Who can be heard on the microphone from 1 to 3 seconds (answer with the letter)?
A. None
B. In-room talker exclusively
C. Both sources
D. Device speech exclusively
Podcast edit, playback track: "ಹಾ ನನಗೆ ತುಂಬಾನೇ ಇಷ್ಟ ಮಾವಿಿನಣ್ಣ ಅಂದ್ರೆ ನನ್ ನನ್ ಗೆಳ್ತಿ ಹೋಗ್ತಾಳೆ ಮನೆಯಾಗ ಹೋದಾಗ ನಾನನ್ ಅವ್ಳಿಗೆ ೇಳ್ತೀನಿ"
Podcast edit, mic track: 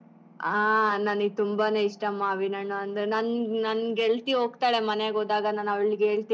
D